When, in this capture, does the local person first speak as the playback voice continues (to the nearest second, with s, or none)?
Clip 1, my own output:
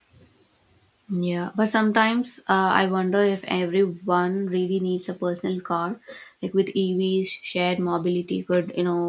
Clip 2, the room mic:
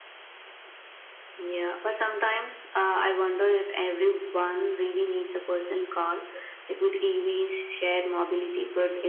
none